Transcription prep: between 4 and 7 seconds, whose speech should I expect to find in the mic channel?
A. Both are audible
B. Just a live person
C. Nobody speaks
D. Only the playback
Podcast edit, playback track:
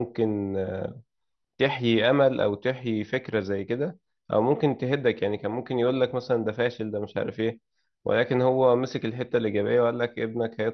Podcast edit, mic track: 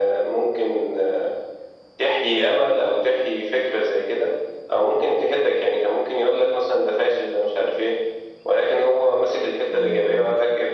D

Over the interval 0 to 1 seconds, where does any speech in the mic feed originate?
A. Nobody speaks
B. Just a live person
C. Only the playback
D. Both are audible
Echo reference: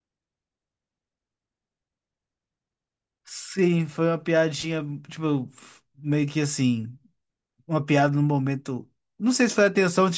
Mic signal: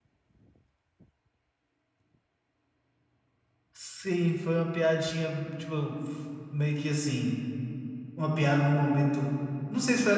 A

